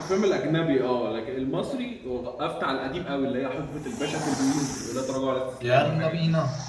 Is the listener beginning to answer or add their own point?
Yes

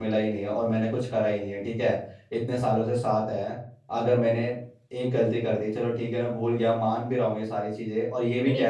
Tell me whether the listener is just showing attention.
No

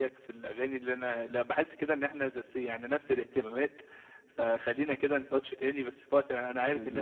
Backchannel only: Yes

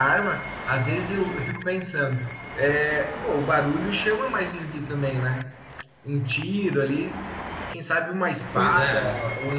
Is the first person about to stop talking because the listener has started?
No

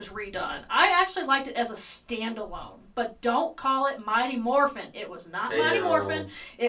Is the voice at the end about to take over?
No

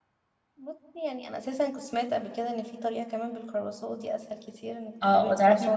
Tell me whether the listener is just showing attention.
No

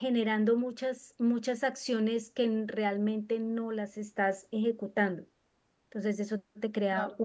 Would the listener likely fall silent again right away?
Yes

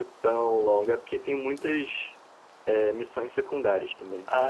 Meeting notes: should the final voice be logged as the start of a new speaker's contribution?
Yes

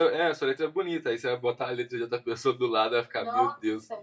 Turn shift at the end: Yes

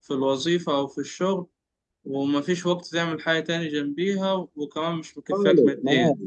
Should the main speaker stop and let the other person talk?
Yes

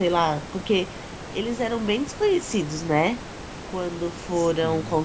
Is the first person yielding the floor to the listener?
No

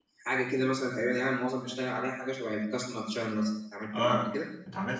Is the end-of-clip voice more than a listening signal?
Yes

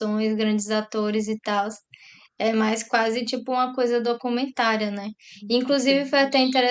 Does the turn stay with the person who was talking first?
Yes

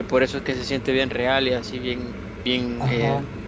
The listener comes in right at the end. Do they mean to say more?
Yes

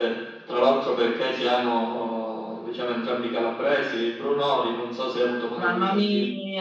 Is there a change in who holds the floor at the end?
Yes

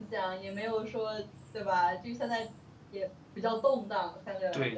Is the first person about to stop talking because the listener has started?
Yes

